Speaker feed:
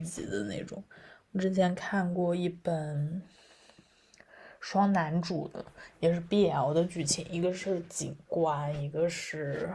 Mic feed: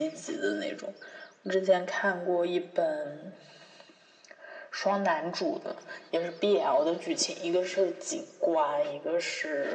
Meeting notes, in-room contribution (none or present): none